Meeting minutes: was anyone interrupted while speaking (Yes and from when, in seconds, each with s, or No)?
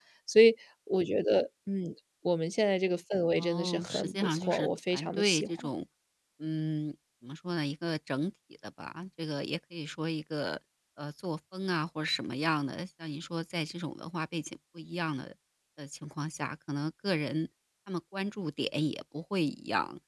Yes, from 3.4 s